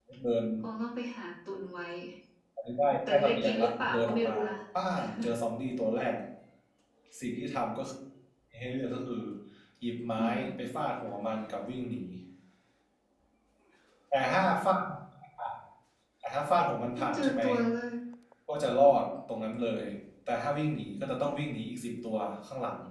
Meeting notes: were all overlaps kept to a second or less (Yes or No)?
No